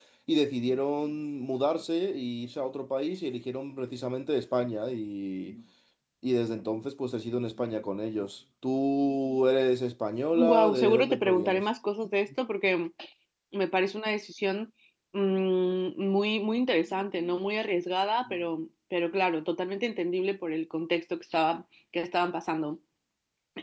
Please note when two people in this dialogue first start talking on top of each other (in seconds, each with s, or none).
10.3 s